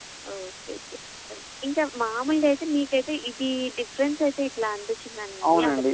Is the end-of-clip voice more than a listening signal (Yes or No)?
No